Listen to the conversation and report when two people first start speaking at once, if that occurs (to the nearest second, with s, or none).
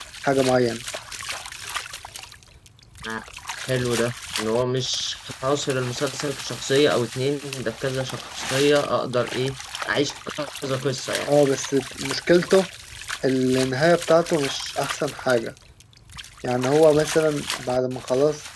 none